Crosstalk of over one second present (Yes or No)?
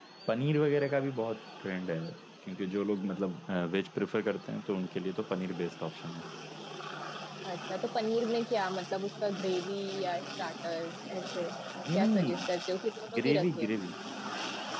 No